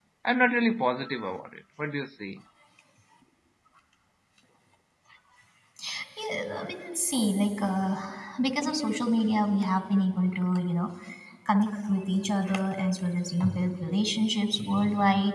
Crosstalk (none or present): none